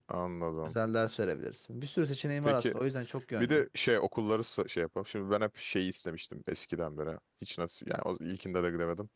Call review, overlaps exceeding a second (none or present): none